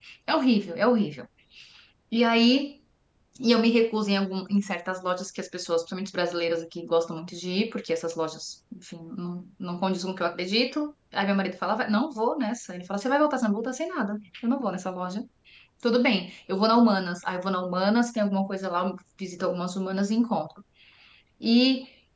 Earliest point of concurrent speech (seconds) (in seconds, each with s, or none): none